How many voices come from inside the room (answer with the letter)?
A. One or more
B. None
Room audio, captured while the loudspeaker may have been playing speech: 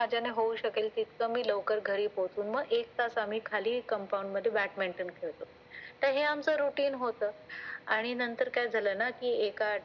B